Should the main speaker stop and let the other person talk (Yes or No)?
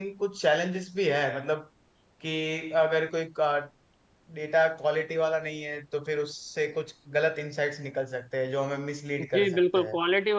Yes